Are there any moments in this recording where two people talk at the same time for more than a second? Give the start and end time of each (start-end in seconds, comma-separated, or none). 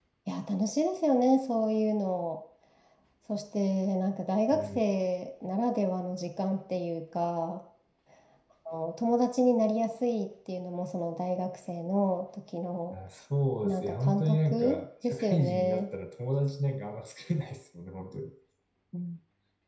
13.6-15.9